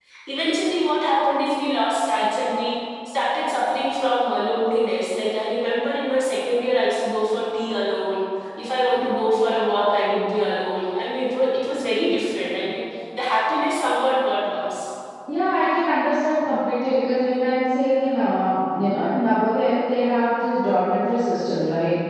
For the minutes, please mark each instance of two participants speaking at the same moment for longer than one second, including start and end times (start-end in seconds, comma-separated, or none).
none